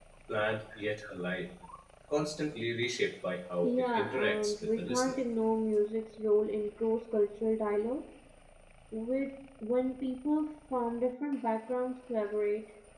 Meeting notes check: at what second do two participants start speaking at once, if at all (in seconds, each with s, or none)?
3.6 s